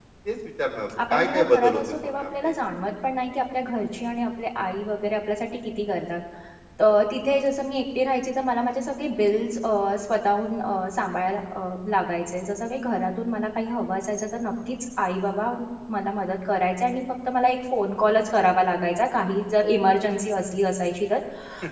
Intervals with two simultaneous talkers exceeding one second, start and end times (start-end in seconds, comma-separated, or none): 1.1-2.5